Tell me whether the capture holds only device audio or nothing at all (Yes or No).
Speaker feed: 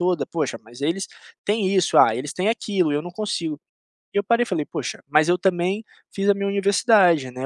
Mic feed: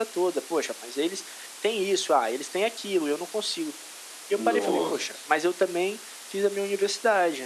No